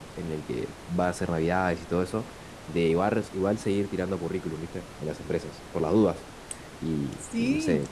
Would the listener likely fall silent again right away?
Yes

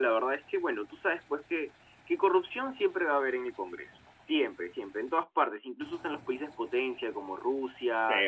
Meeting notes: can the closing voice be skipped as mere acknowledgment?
Yes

